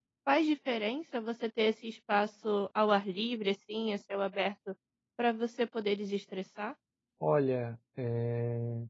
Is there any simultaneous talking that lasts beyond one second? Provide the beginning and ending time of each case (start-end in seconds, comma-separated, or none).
none